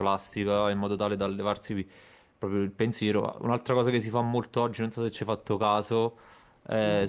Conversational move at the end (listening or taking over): listening